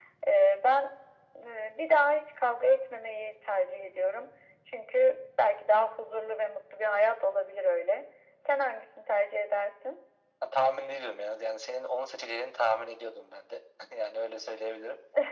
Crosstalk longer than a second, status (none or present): none